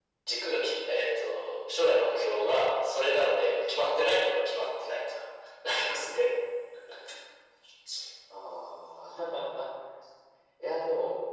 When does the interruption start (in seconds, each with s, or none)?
none